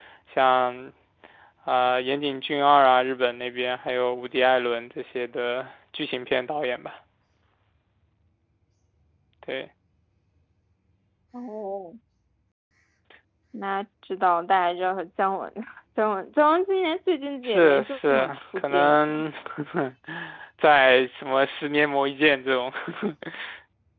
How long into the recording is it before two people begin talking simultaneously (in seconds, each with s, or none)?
17.4 s